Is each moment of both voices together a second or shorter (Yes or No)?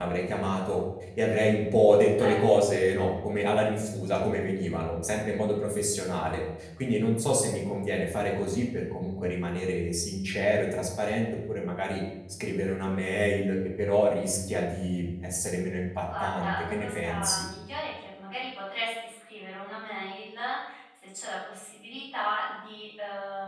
No